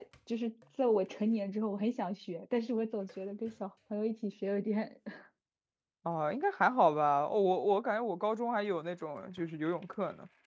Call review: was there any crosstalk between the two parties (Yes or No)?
No